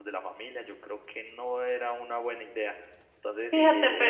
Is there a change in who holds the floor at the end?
Yes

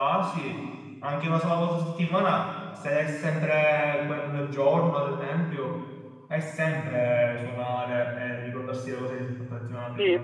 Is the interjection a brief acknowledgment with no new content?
No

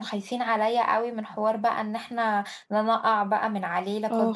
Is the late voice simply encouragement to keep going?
No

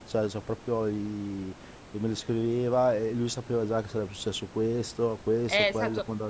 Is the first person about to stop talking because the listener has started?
Yes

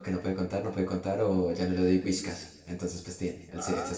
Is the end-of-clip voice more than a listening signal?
Yes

